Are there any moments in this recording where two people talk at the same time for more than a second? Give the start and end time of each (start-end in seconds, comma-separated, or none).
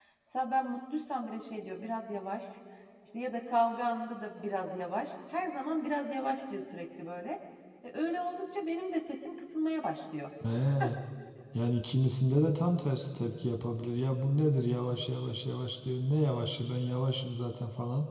none